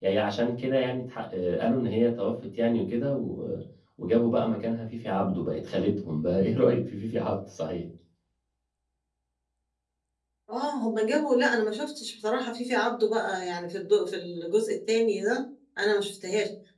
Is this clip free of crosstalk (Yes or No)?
Yes